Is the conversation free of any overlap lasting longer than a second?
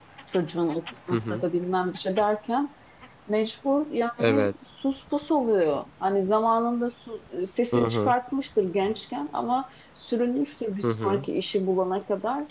Yes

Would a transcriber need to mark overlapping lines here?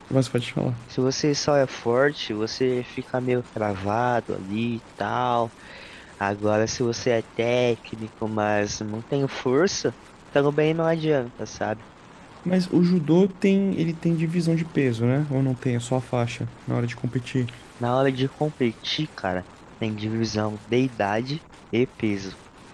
No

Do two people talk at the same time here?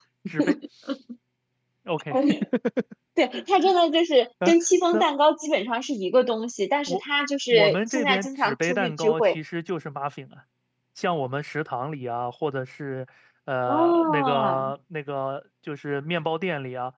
Yes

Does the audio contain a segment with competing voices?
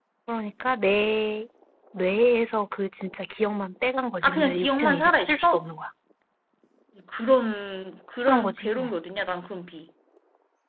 Yes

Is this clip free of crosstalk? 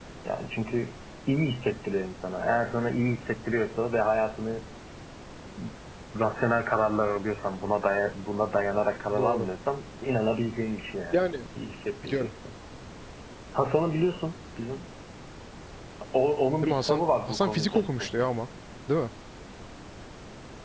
No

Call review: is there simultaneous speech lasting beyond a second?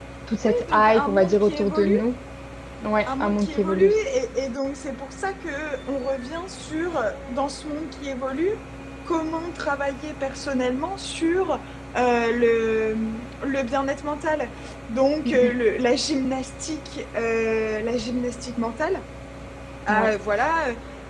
Yes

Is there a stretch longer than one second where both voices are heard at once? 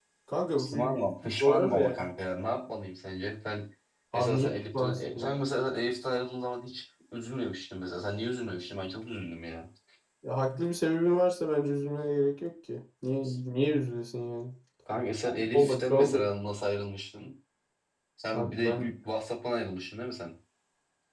Yes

